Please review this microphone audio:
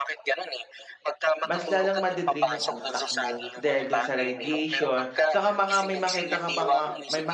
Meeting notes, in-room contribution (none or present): present